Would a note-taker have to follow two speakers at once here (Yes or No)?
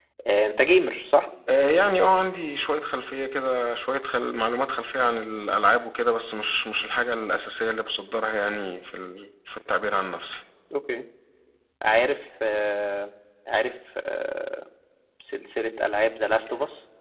No